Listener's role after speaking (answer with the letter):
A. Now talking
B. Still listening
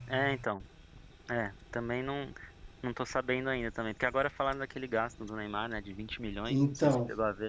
A